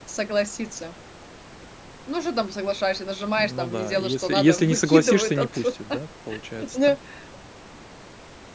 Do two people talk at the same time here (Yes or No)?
Yes